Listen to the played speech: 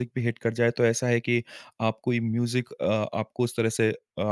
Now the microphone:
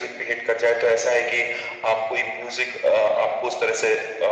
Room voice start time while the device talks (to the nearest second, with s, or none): none